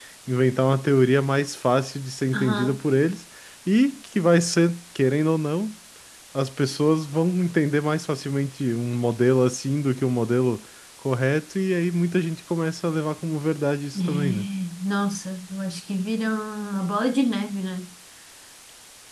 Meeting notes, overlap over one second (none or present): none